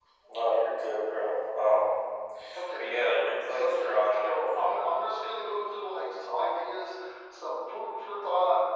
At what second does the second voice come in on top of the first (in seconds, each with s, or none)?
3.5 s